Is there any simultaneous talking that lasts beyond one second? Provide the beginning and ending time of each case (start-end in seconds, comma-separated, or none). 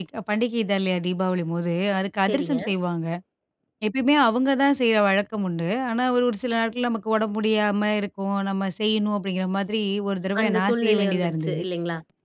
10.4-11.6